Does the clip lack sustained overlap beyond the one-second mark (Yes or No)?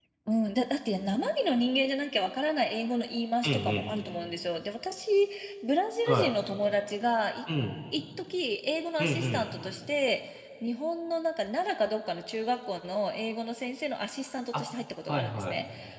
Yes